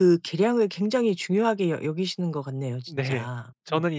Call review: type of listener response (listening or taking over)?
taking over